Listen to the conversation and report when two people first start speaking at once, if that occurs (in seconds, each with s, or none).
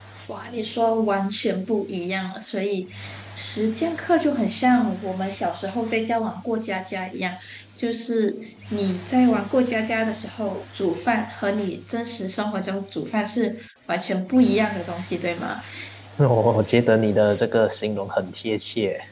none